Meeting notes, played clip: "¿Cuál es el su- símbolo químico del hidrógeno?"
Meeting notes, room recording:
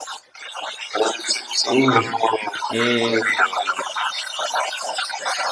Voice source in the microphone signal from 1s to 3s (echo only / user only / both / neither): both